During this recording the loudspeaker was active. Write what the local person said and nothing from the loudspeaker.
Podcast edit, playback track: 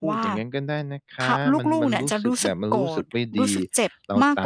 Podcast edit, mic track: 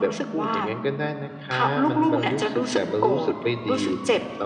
none

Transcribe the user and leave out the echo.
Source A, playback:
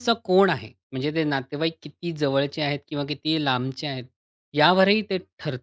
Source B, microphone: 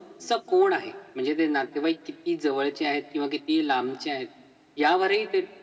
none

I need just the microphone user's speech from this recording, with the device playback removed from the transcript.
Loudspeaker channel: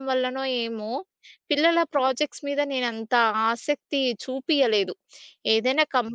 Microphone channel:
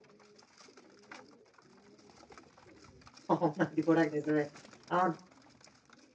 అవును. అది కూడా నిజమే. అవును.

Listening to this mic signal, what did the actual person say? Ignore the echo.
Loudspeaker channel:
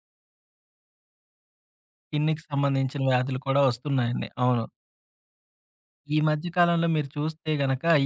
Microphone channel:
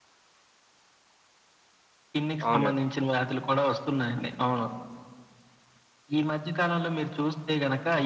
అవునండి.

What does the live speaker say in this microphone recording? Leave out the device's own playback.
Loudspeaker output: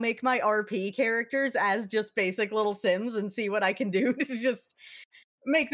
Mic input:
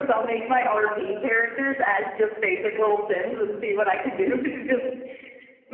none

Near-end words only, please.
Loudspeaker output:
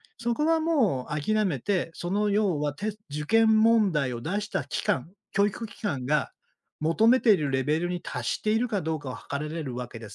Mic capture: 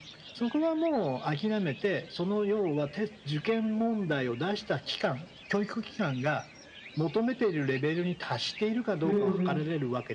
うんうん。

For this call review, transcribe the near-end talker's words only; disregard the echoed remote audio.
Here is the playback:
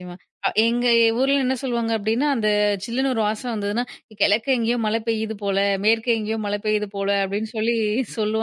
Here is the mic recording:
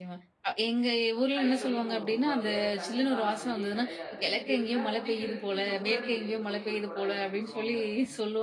கை வலிக்கும் ரொம்ப. வேற தண்ணீக்கான வழியே கிடையாது. இத விட்டா குடிக்கிறதுக்கு இந்த ஊரணியிலேருந்து போய் ஒரு குடம் எடுத்துட்டு வருவாங்க.

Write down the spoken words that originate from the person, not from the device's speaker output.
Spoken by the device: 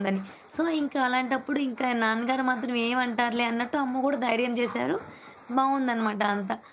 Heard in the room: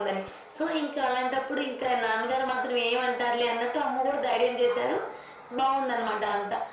none

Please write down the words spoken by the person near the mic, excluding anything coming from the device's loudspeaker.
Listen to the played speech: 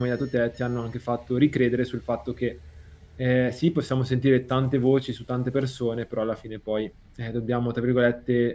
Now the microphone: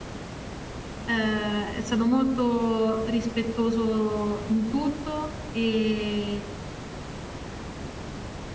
Ehm, è stato molto rispettoso in tutto, ehm,

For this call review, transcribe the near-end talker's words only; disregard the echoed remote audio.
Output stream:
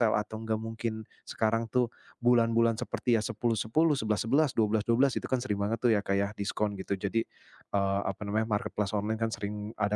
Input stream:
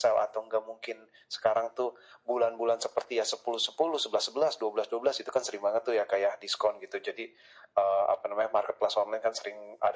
none

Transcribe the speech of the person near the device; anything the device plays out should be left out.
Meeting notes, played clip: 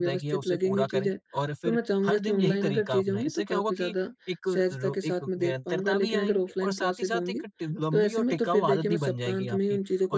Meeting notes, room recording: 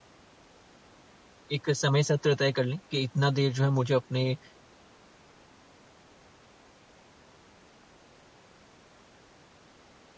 एक समय सत्र तय कर लें कि इतना देर जो है मुझे अपने अ,

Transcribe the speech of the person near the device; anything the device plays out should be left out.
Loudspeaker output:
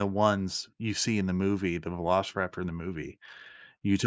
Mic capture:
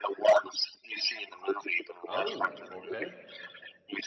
Oh, okay.

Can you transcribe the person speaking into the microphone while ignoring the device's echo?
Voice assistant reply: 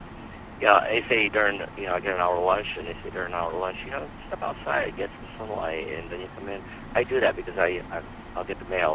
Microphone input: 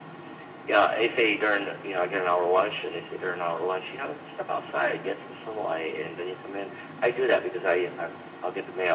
none

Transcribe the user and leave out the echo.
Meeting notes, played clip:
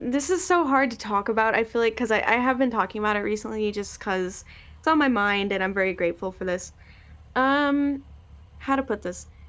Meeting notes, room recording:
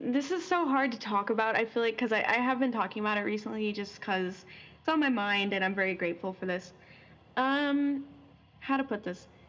none

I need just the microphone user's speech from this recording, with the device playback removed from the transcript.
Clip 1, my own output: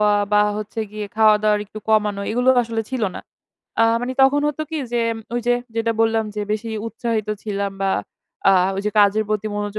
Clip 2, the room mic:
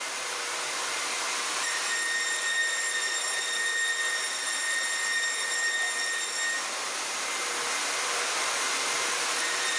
none

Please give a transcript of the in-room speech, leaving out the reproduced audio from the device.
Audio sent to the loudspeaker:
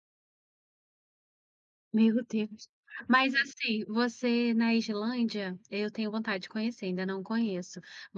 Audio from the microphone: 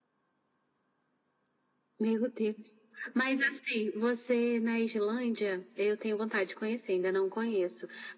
none

